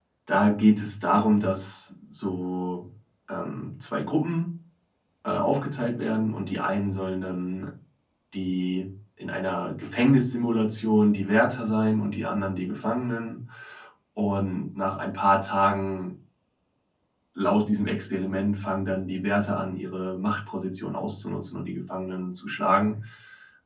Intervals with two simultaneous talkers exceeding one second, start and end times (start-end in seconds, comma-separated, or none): none